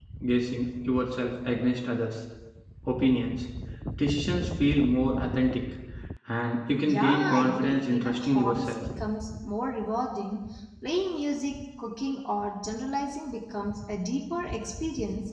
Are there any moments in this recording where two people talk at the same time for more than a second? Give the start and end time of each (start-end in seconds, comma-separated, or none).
6.8-8.7